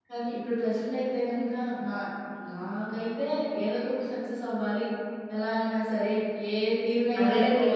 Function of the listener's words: taking over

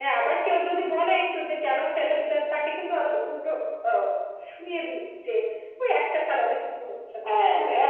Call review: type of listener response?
taking over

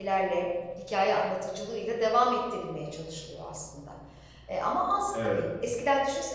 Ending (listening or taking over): listening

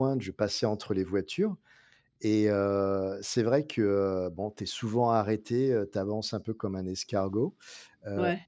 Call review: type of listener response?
listening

